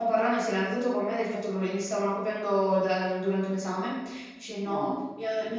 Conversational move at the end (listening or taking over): listening